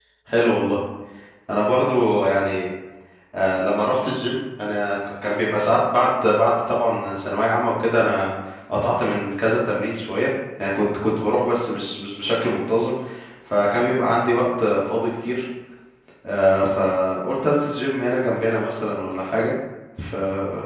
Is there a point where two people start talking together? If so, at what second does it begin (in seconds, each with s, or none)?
none